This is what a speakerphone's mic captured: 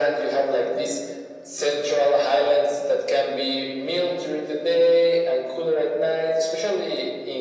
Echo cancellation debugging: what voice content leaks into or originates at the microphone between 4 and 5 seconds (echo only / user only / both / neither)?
echo only